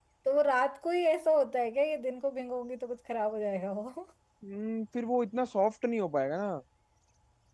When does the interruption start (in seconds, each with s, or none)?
none